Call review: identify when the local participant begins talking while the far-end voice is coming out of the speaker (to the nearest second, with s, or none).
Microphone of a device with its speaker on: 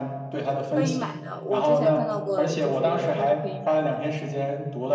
1 s